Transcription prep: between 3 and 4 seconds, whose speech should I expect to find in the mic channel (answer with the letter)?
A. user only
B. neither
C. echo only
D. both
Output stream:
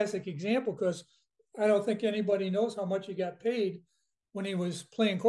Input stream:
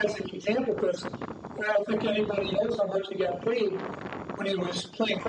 C